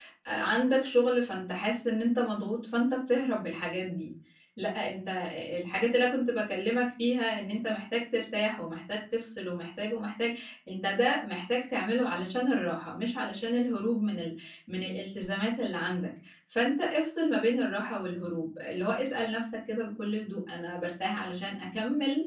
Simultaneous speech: No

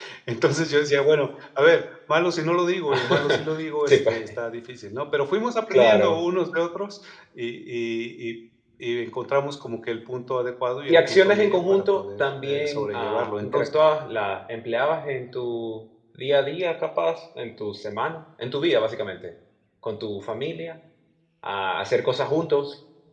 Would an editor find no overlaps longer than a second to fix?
No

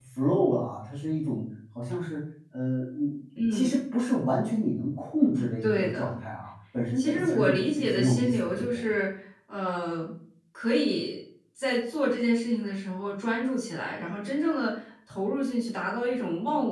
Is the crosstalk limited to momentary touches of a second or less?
No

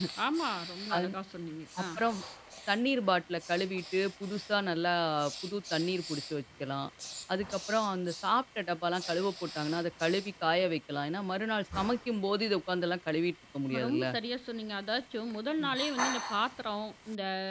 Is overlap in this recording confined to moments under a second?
Yes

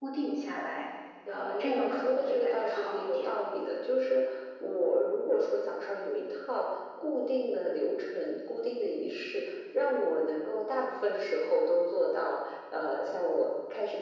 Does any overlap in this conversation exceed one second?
Yes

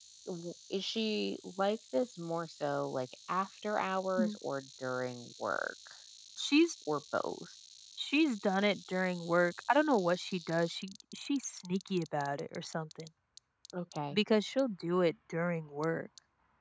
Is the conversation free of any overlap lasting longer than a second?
Yes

